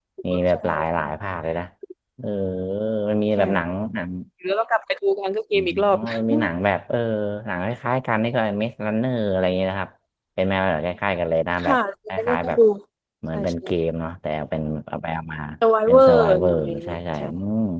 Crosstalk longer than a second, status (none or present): present